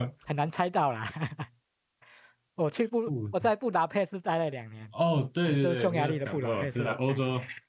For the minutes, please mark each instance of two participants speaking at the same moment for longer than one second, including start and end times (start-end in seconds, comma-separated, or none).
5.4-7.2